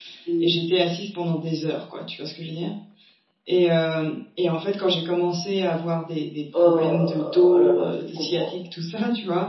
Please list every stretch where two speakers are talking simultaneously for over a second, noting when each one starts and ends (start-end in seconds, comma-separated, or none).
6.6-8.5